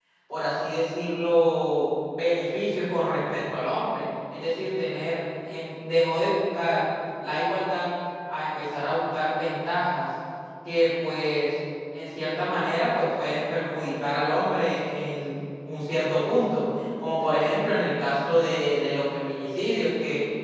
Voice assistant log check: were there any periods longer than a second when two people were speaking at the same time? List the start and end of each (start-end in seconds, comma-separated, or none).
none